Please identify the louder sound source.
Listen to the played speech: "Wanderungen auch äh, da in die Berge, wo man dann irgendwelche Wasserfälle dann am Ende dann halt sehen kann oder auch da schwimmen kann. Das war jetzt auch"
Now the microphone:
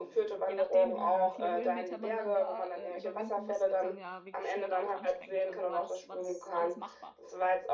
echo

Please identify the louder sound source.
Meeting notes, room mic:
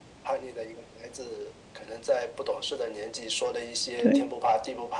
user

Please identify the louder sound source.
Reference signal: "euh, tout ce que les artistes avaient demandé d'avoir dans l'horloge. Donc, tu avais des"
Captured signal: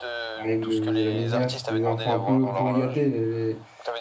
user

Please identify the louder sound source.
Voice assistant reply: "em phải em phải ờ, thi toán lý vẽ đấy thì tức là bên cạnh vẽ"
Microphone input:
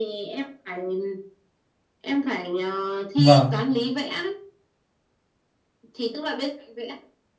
user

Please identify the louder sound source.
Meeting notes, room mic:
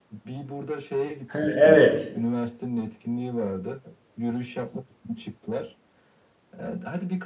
user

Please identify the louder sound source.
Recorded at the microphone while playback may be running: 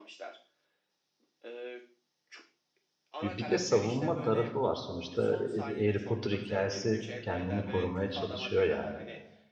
user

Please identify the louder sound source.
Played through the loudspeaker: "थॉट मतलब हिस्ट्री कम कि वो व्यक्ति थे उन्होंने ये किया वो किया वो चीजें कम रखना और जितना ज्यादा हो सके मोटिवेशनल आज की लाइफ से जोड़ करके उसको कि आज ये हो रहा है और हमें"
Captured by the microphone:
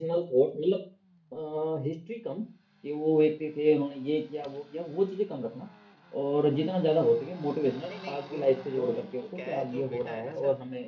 echo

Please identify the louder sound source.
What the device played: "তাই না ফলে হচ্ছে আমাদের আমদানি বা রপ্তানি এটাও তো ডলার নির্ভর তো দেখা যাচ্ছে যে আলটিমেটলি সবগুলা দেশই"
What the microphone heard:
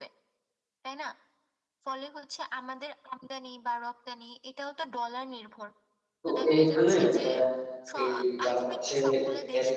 user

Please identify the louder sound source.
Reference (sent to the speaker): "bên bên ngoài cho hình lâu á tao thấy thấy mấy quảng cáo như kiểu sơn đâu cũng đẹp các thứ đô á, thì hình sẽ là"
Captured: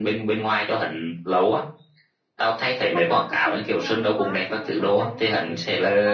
echo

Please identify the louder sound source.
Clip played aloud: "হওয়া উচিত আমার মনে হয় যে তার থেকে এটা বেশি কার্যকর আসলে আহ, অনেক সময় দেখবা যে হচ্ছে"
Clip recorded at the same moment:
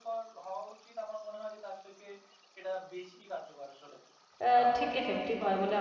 user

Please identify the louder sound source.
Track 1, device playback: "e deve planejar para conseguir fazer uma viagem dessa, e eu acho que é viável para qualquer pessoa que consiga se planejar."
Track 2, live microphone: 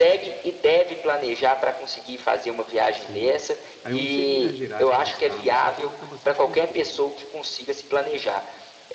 echo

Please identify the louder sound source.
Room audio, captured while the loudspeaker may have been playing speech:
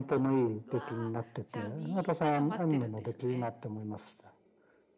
echo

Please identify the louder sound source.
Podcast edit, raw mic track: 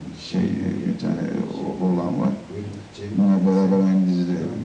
echo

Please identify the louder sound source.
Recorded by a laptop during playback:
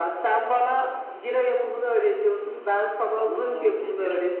echo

